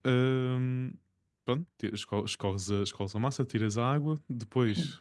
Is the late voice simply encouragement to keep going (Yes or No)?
Yes